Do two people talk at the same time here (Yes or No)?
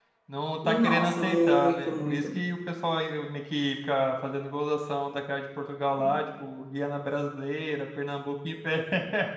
Yes